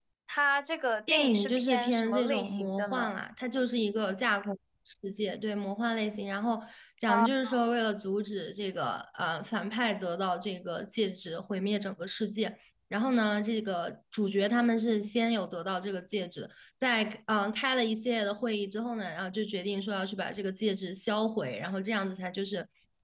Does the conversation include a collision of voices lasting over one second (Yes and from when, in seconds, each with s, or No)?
Yes, from 1.1 s